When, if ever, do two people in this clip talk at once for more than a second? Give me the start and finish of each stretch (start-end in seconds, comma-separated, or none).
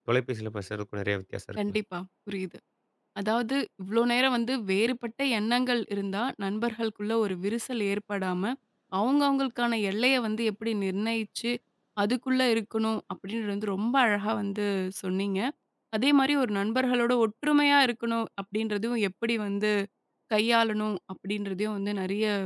none